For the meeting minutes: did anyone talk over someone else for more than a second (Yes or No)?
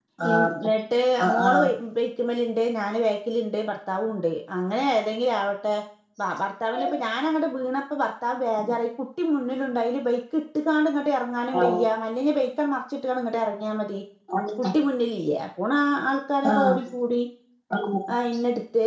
No